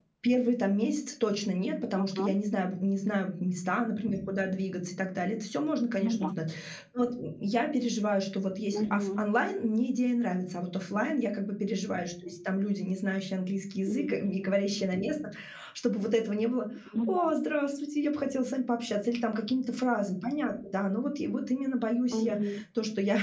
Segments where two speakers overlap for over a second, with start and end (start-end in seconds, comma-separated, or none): none